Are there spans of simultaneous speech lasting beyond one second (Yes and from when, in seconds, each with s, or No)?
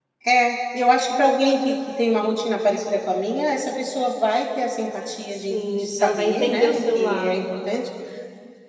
Yes, from 5.5 s